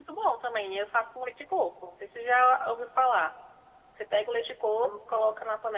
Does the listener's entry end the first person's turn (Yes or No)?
No